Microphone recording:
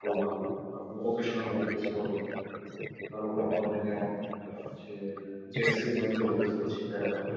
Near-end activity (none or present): present